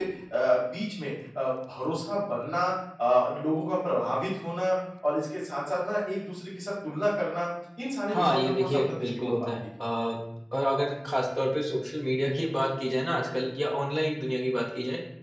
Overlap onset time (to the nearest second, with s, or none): 8 s